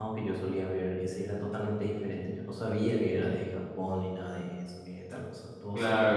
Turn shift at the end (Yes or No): Yes